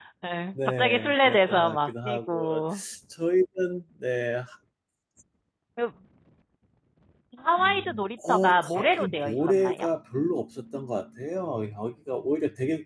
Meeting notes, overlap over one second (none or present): present